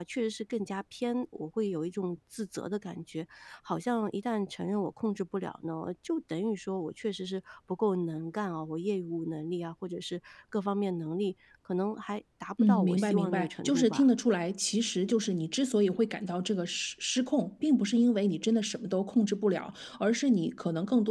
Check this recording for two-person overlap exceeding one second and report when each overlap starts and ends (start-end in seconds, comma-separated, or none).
12.6-14.0